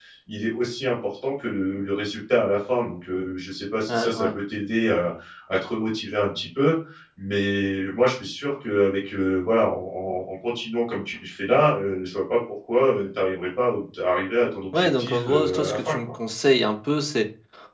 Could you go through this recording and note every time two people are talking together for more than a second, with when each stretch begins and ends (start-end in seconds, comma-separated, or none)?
14.7-16.0